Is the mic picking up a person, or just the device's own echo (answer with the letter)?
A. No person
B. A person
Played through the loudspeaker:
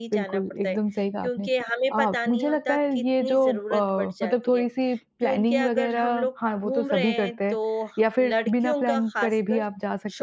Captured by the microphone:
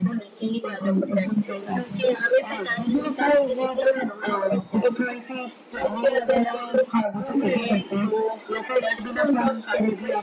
A